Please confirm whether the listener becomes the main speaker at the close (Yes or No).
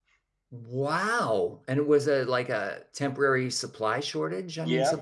Yes